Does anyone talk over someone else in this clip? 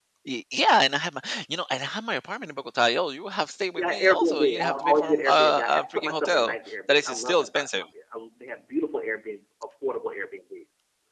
Yes, from 3.8 s

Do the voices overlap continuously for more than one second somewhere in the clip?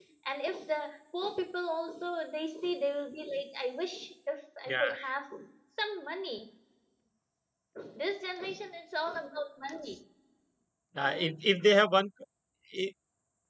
No

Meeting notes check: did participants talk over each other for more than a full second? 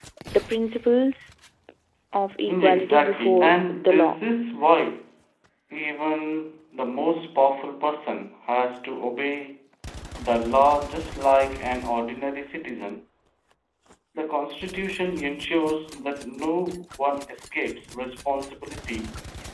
Yes, from 2.5 s

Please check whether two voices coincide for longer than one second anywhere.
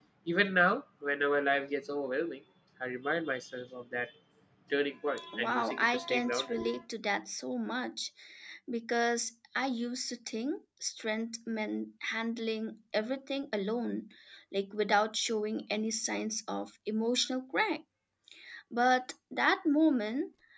Yes, from 5.3 s

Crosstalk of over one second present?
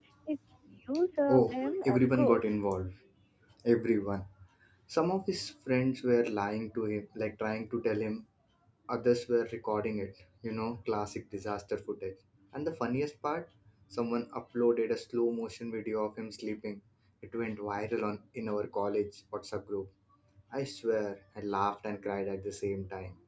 Yes, from 1.3 s

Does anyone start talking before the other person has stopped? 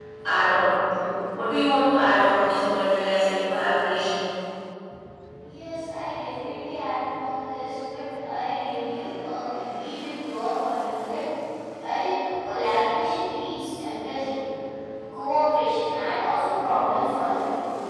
No

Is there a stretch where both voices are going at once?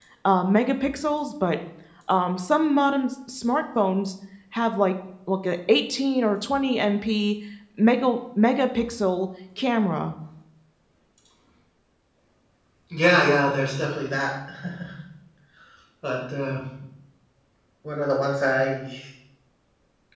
No

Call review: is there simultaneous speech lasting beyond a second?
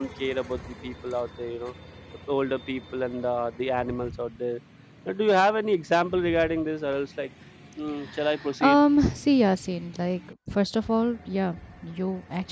No

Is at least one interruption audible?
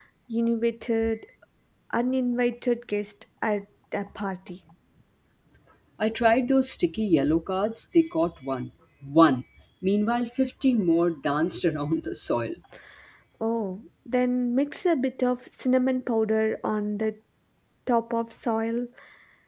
No

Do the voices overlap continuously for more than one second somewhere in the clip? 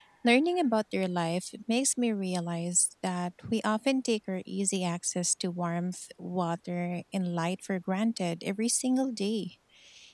No

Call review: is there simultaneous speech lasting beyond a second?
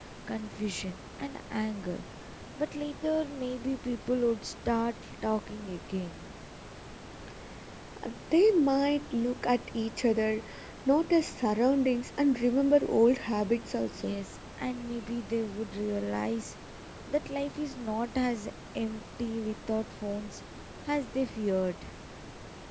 No

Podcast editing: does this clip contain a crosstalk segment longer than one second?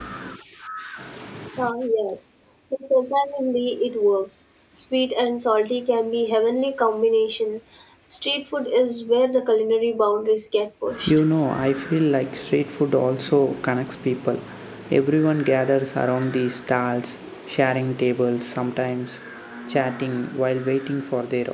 No

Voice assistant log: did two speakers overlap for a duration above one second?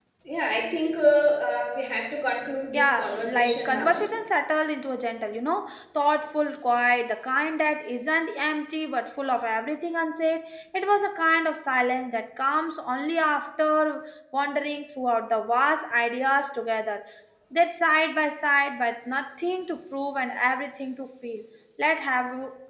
Yes, from 2.7 s

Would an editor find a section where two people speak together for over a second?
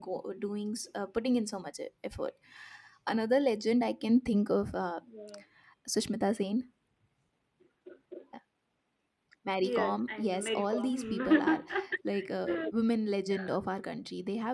Yes, from 9.6 s

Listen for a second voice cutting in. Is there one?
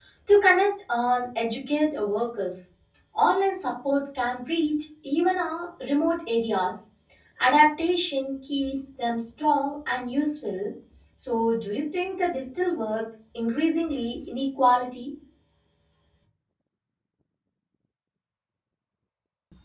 No

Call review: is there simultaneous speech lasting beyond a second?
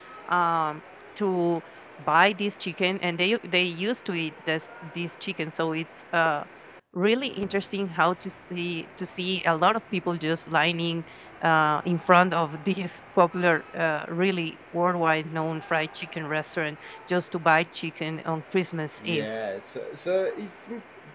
No

